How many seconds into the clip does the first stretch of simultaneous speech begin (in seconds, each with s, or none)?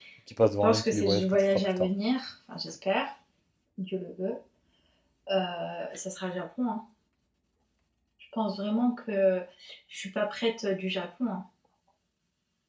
0.6 s